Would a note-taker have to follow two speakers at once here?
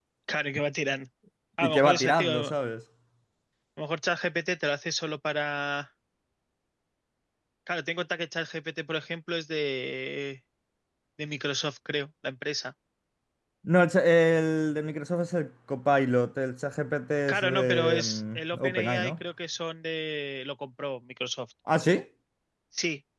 Yes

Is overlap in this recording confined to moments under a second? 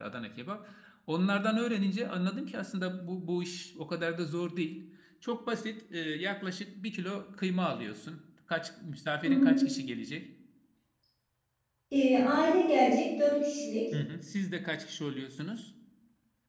Yes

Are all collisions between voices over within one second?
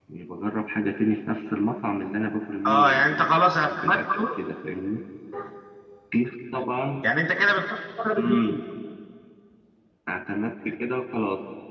No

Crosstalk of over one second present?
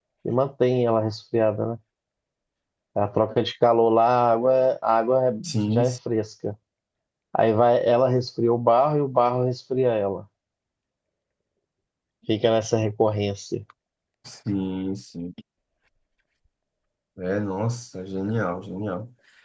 No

